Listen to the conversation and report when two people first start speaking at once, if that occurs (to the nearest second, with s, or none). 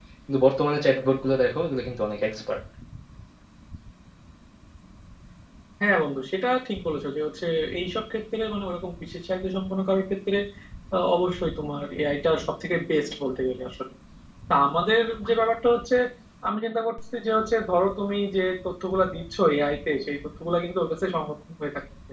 none